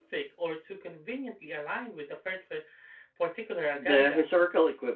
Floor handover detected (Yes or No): Yes